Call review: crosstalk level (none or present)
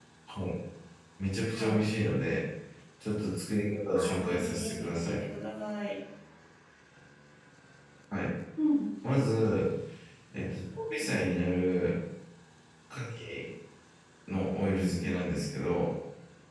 present